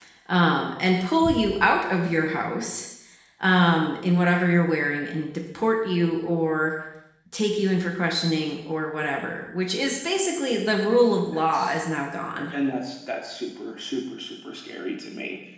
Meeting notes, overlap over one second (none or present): none